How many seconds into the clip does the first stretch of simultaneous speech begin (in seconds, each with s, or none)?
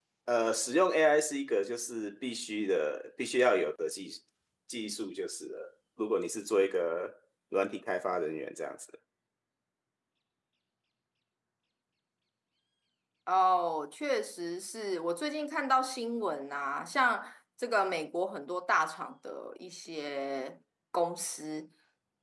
none